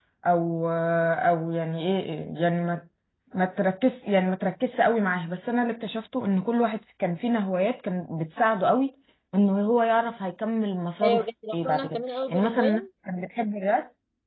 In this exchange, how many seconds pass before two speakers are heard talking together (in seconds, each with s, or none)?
11.0 s